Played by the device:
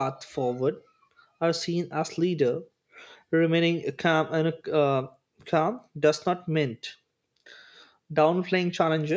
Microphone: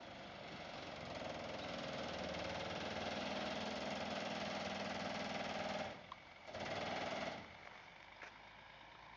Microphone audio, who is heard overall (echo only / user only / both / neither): neither